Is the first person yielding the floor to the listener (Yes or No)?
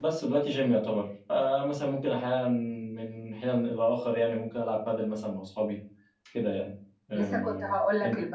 Yes